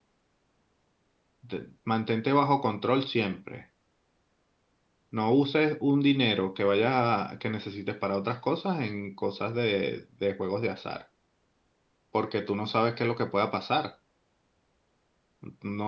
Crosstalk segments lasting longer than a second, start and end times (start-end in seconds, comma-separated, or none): none